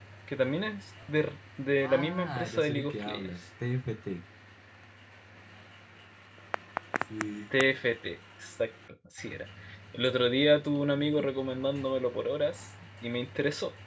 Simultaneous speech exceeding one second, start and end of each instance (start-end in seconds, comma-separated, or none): 1.8-3.3